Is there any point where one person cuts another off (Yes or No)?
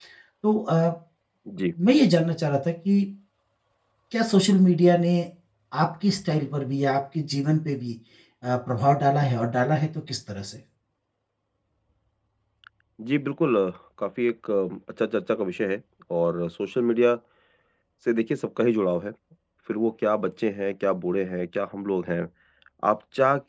No